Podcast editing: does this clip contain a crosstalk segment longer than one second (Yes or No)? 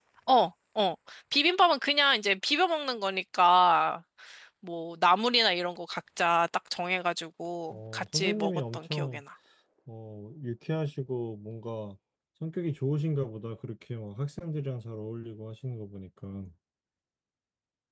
Yes